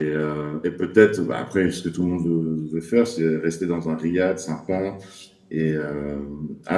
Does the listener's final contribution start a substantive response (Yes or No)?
No